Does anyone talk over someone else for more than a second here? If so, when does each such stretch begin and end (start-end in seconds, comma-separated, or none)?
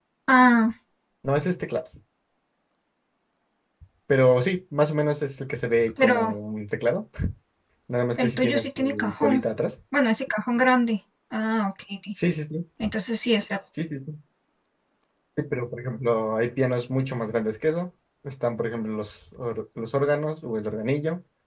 8.2-9.4